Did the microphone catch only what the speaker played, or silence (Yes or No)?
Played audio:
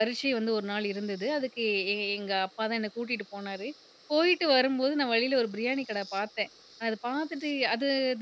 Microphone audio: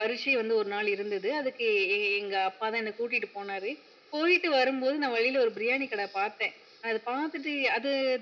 Yes